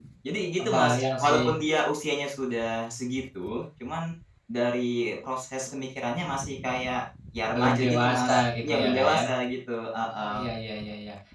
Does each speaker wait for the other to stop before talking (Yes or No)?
No